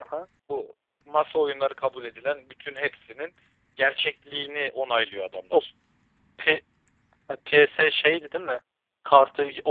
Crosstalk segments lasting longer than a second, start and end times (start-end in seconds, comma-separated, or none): none